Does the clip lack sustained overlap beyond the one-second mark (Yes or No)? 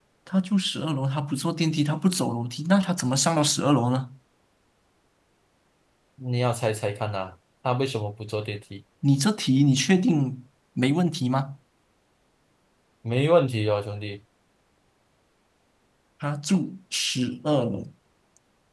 Yes